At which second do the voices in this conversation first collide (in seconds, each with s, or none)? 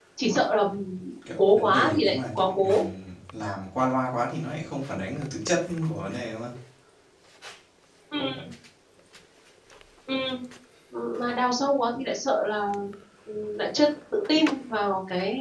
1.4 s